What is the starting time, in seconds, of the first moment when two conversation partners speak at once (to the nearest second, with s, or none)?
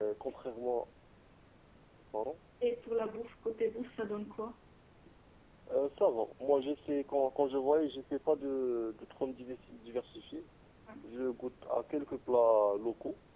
none